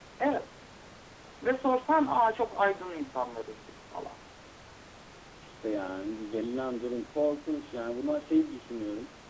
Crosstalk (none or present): none